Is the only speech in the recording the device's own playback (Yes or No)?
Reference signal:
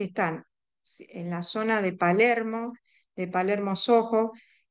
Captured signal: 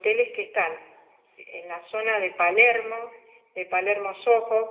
Yes